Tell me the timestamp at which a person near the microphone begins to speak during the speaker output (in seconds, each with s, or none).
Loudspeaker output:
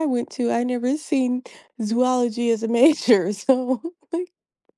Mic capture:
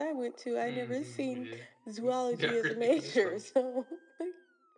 0.6 s